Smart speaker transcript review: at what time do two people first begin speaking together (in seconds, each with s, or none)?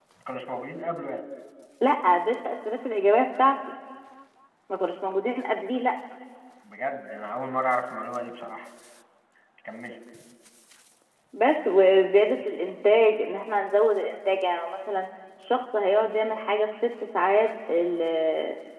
none